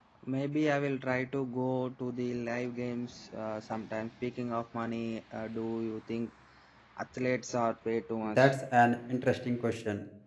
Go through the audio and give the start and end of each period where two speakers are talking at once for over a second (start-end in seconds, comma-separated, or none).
none